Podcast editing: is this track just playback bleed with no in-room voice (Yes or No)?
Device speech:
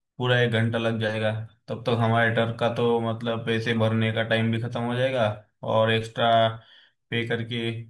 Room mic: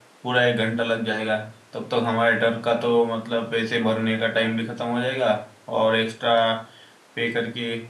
Yes